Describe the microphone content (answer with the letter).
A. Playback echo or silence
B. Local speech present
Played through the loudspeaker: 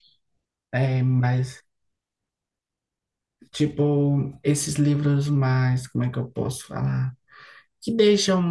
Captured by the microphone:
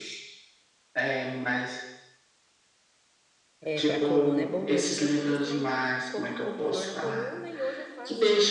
B